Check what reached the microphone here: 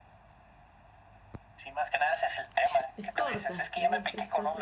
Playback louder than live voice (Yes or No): Yes